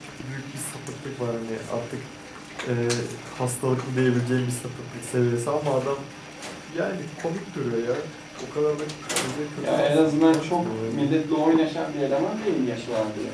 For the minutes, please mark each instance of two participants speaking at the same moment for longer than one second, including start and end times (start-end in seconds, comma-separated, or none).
9.6-11.1